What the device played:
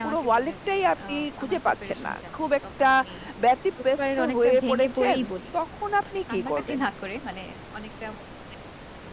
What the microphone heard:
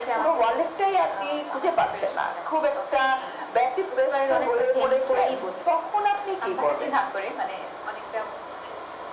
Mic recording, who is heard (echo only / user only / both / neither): echo only